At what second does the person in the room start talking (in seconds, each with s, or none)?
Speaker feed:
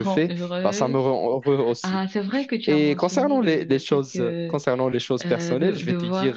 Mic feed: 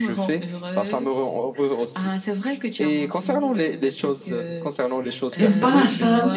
5.4 s